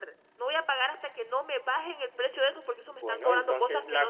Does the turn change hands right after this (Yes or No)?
Yes